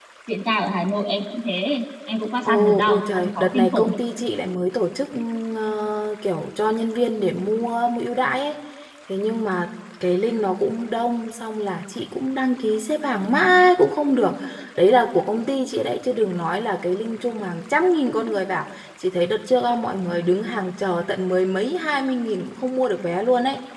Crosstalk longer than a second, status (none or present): present